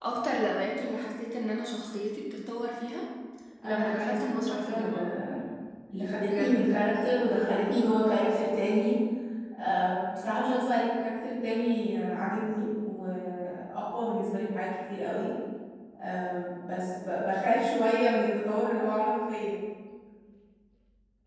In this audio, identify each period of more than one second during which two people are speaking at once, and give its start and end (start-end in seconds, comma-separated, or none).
3.6-5.0